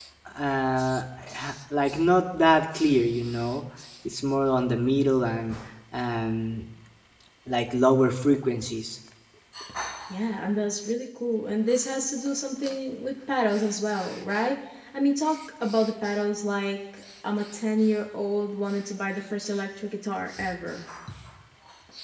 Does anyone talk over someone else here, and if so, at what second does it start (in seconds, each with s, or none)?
none